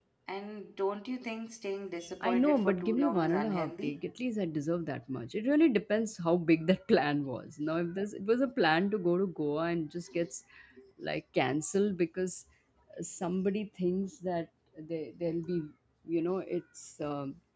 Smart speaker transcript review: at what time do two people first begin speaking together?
2 s

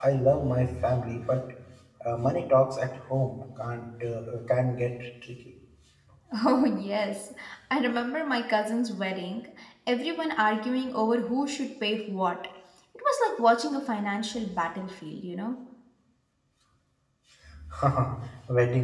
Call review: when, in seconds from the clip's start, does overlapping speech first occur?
none

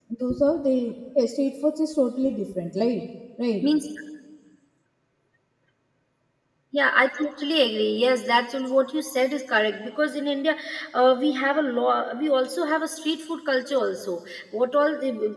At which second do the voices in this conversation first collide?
none

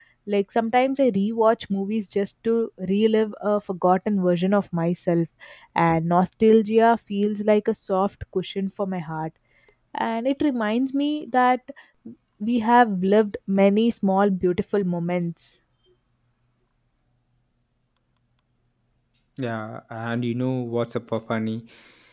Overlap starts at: none

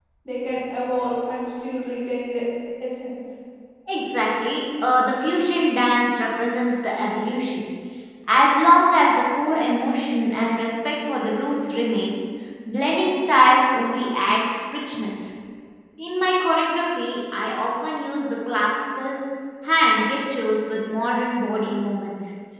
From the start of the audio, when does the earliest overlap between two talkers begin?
none

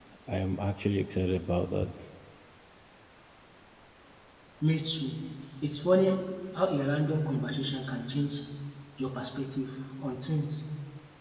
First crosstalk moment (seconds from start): none

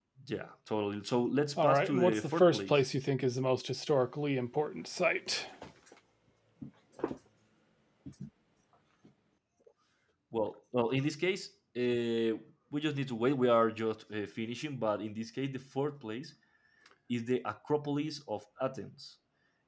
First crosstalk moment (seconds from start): 2 s

